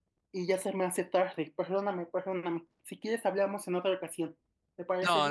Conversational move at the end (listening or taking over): taking over